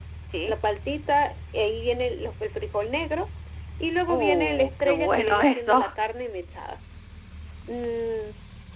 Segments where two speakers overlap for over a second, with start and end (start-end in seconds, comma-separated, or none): 4.1-5.8